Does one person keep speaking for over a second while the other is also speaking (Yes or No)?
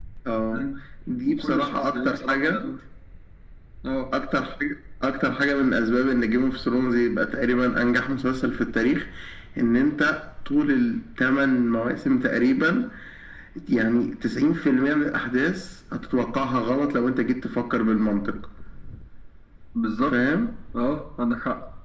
Yes